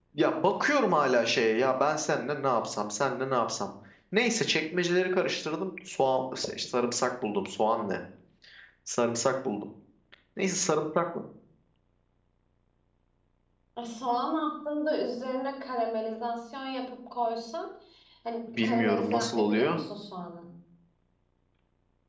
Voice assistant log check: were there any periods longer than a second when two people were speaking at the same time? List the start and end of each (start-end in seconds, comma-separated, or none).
18.6-19.8